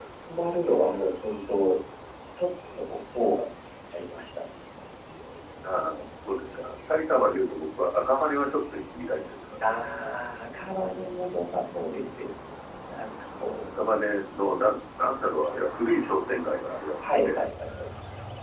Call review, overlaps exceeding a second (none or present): none